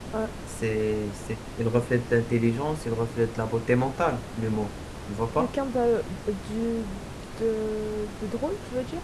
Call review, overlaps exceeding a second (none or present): none